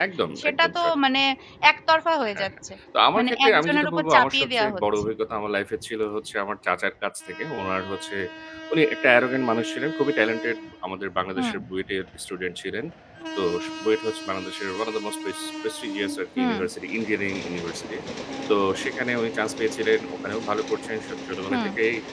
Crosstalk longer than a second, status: present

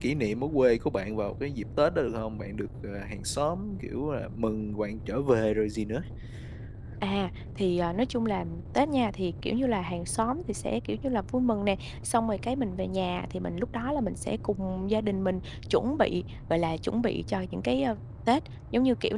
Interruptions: none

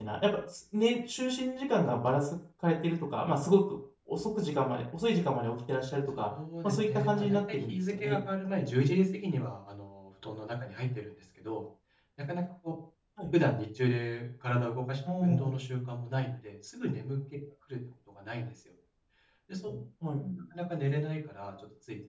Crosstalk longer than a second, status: present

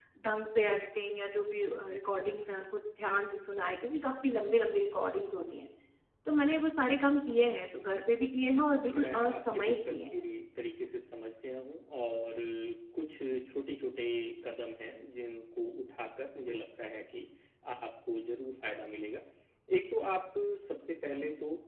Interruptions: present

